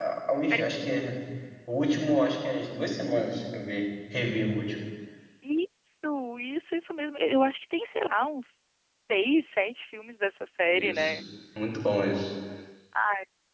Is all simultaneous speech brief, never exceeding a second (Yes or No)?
Yes